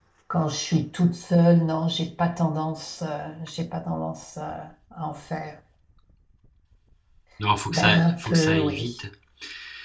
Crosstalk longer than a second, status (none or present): present